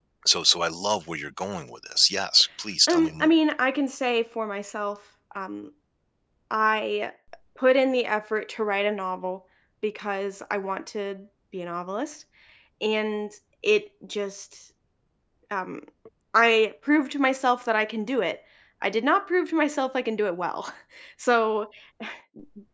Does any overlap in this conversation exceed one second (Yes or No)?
No